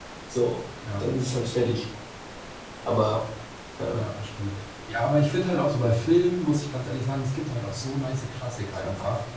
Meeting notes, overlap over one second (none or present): none